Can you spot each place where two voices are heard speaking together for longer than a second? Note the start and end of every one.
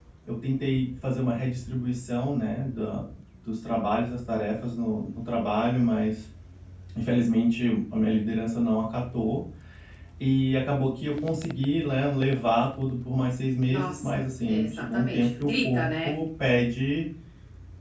13.7-16.1

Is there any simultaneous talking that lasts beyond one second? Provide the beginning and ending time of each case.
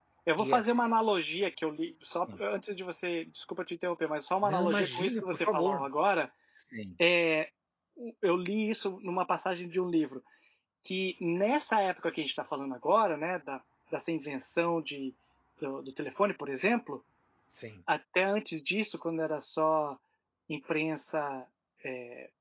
4.4-5.8

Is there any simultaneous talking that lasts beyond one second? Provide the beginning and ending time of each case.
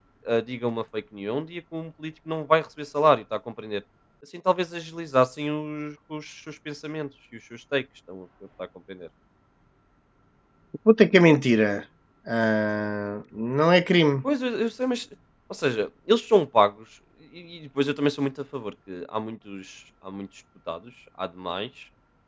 none

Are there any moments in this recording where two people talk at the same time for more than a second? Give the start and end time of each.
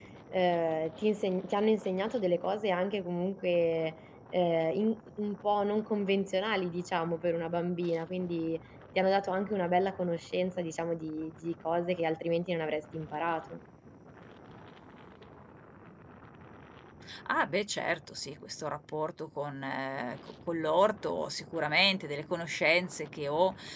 none

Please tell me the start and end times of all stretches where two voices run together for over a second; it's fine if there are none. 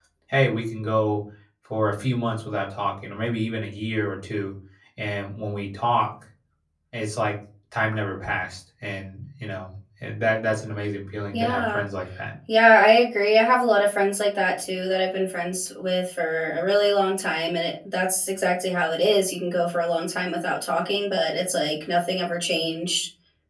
none

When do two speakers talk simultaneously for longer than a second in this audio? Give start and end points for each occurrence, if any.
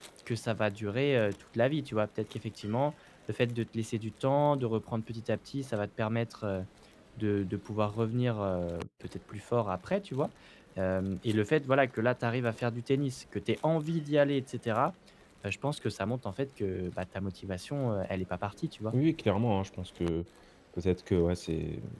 none

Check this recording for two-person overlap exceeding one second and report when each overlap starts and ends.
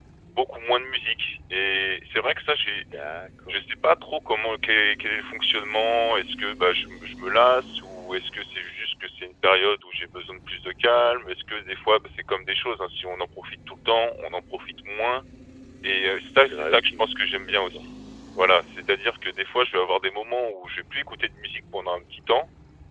16.5-17.8

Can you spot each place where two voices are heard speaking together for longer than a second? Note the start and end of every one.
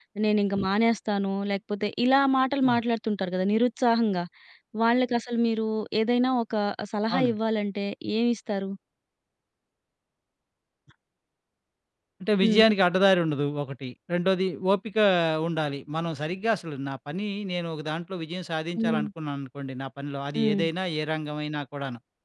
none

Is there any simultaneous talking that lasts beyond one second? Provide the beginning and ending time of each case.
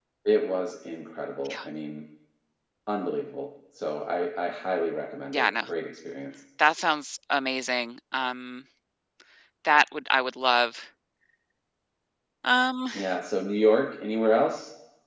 none

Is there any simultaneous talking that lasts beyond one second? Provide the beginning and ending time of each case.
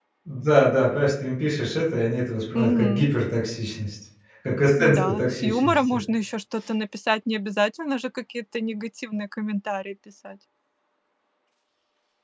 4.8-6.0

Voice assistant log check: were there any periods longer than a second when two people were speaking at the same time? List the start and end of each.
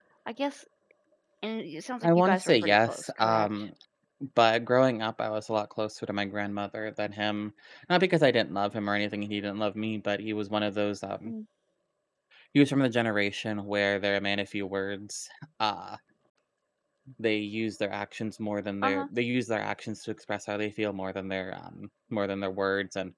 2.0-3.5

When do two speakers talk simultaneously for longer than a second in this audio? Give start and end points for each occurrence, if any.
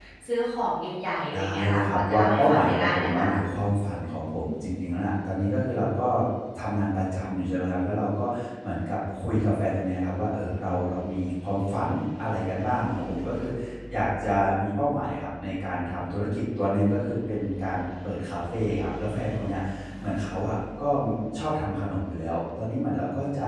1.3-3.4

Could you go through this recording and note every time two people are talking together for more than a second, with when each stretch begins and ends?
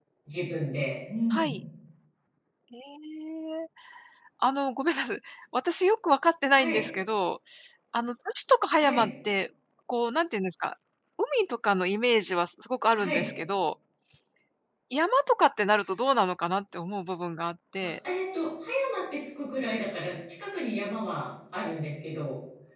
none

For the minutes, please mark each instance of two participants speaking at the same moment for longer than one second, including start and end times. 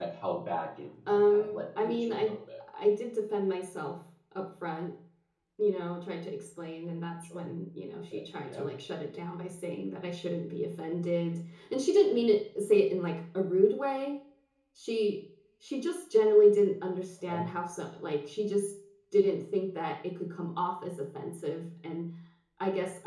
1.1-2.3

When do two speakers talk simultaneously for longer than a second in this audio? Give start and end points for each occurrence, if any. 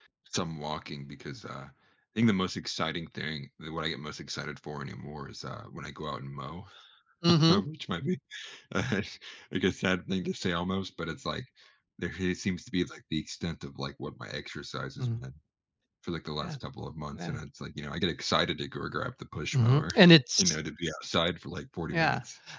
none

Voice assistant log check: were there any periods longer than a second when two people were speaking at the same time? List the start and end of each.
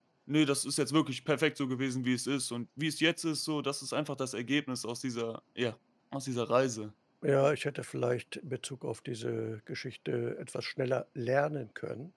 none

